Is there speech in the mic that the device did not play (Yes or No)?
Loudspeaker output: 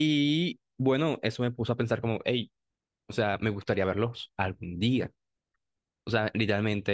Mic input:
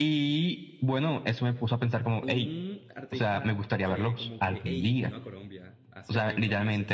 Yes